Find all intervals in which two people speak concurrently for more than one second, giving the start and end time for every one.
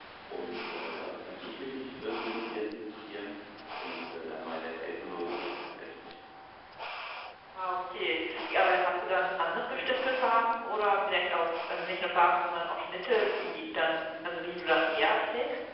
none

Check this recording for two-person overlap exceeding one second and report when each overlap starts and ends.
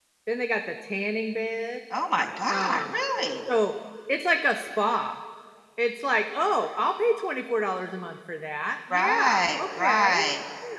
8.9-10.3

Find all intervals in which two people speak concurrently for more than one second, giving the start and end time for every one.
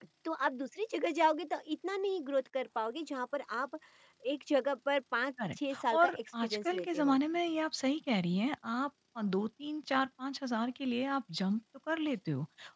5.5-7.2

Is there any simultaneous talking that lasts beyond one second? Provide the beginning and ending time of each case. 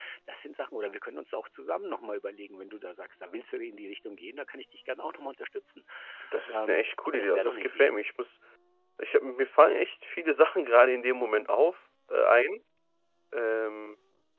6.5-7.9

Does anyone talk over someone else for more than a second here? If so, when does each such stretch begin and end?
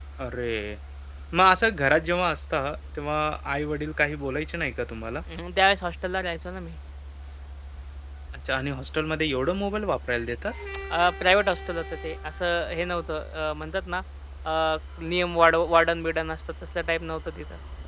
none

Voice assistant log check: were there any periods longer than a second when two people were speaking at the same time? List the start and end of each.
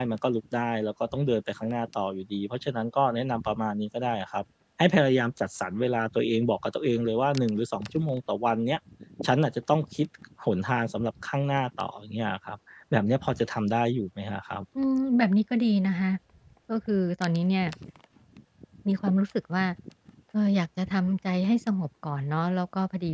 none

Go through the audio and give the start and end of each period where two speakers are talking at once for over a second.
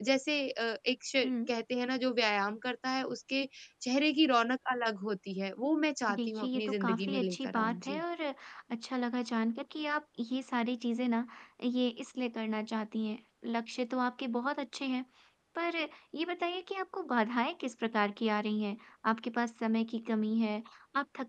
6.2-8.0

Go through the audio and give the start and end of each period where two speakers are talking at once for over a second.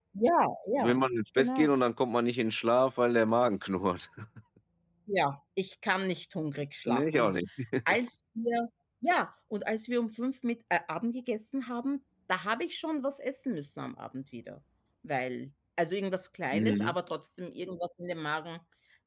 none

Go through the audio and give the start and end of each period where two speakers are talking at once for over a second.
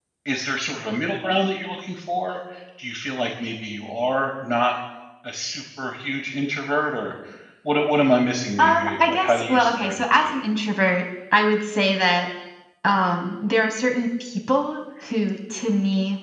8.6-10.3

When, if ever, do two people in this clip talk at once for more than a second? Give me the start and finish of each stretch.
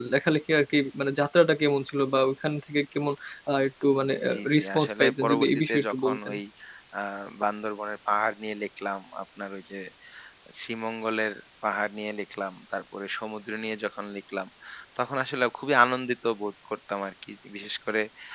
4.3-6.3

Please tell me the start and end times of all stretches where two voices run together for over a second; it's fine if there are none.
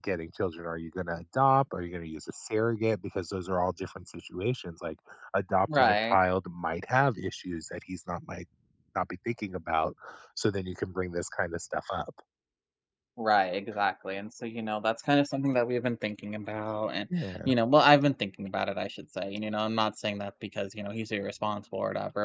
none

